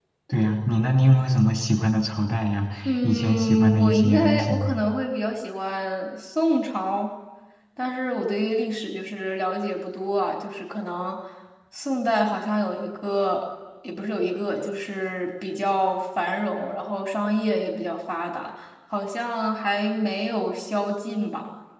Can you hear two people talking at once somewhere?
Yes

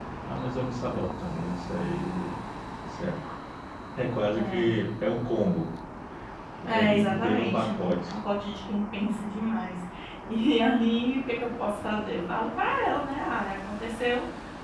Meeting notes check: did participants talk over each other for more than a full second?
Yes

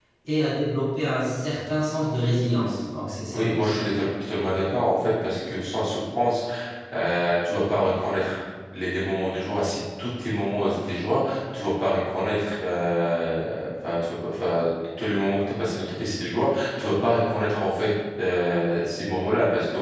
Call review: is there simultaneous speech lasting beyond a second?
No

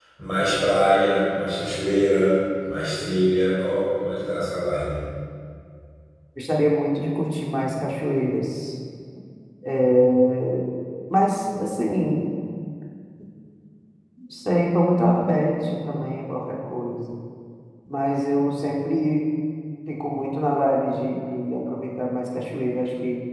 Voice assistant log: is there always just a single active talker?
Yes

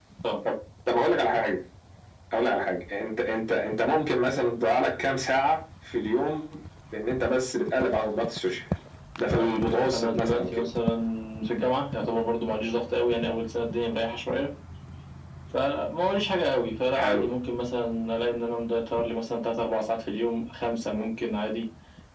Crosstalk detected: Yes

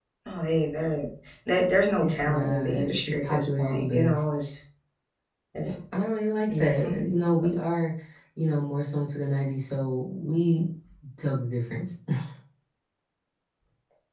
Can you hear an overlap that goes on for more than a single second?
Yes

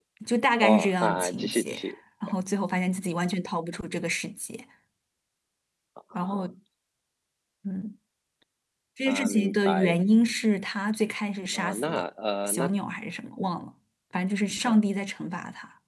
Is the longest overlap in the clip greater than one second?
Yes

